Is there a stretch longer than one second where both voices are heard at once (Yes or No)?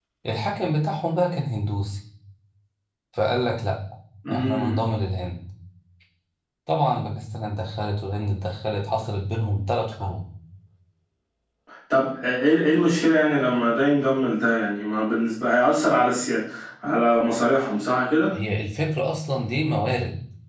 No